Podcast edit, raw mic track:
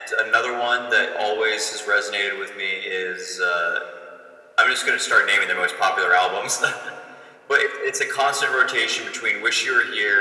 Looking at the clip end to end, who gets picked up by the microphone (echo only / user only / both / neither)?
echo only